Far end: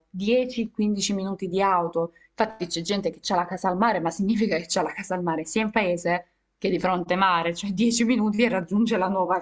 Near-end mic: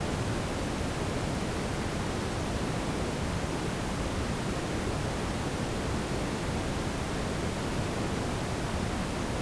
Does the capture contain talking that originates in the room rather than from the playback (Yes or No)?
No